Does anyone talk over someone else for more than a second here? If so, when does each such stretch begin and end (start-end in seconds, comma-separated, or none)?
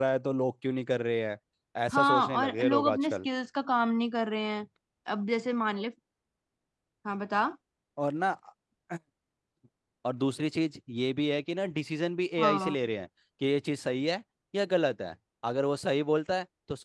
1.9-3.3